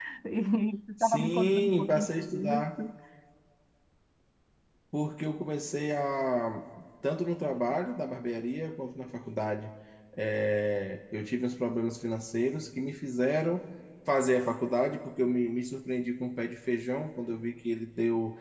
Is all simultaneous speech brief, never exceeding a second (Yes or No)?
No